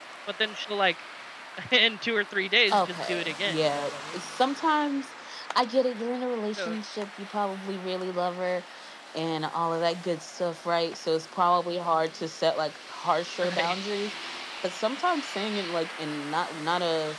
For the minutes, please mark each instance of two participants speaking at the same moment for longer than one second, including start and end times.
2.7-4.2

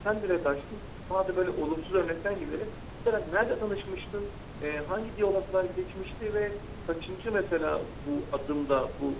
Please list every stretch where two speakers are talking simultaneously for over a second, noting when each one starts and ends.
none

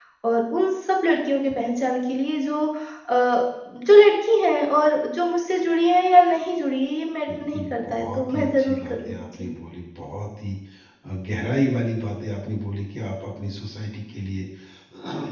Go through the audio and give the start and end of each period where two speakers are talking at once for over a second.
7.3-9.5

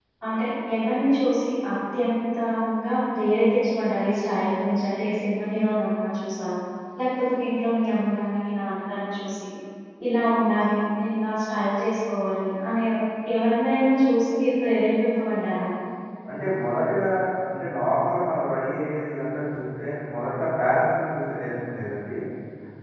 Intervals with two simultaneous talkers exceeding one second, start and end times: none

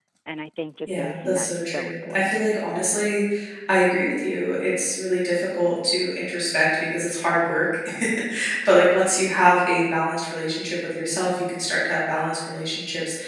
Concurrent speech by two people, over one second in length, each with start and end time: 0.9-2.4

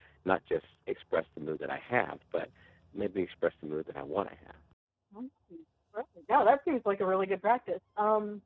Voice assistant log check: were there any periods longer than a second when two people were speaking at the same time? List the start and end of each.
none

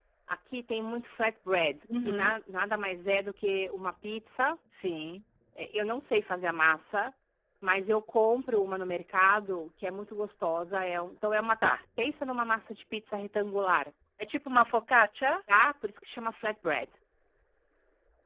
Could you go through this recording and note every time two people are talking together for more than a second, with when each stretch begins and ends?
none

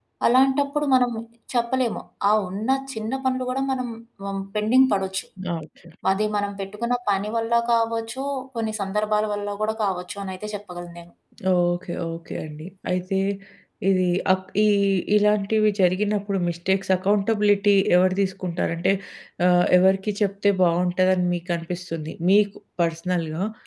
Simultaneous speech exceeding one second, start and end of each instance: none

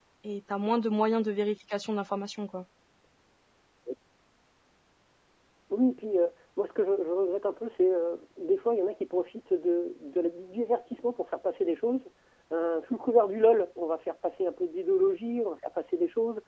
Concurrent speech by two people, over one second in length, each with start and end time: none

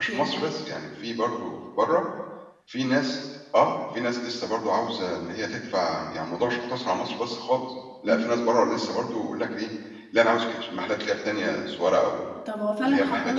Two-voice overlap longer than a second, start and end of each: none

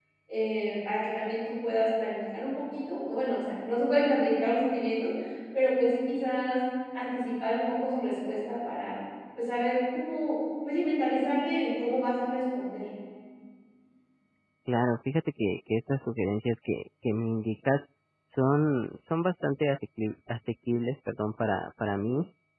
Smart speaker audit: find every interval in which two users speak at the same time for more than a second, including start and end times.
none

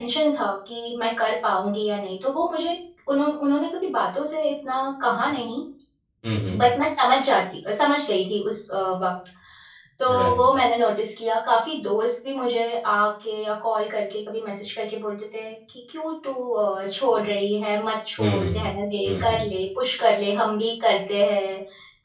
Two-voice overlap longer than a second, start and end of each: none

